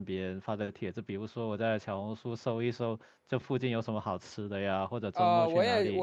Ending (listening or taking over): taking over